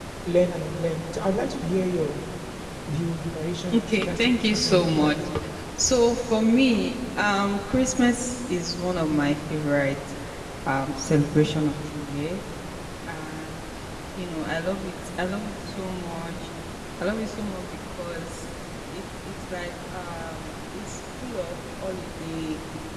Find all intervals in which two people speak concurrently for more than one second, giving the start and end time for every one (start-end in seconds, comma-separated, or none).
3.7-5.1